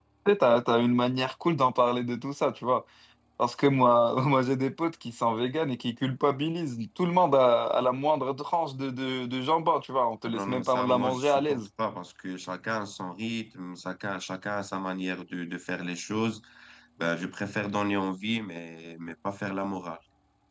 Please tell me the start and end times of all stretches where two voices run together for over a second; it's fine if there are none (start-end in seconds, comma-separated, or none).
10.3-11.7